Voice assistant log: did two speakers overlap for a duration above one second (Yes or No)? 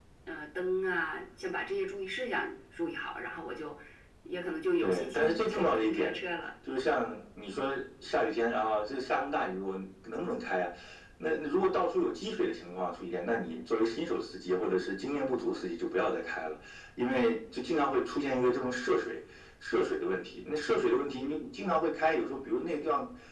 Yes